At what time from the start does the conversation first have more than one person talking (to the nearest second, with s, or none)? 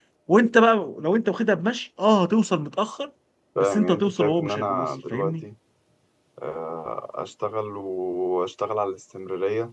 4 s